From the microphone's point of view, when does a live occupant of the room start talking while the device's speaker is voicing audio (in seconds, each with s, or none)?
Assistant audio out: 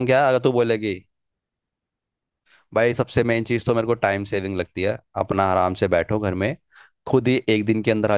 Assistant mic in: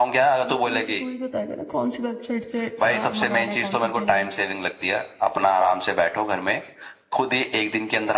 0.5 s